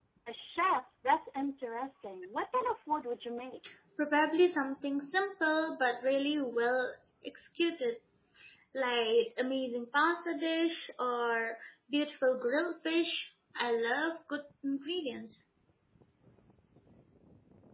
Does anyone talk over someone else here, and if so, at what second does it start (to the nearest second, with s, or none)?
none